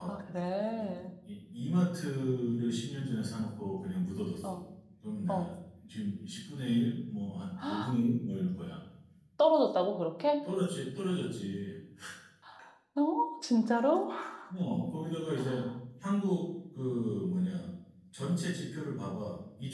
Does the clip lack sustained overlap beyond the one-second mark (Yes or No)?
Yes